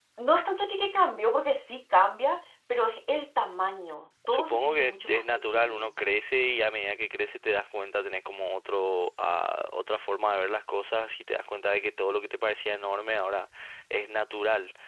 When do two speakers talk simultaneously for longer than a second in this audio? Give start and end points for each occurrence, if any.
4.3-6.0

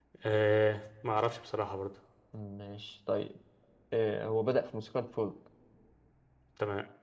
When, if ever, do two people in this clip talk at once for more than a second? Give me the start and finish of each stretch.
none

